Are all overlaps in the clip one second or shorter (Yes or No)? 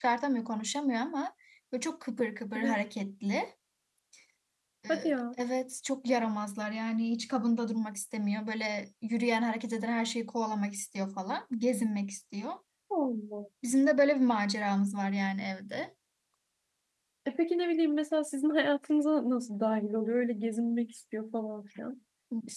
Yes